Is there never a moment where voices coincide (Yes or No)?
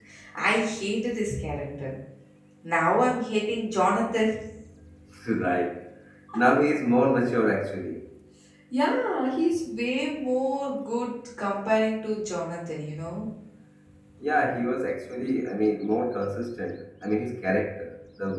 Yes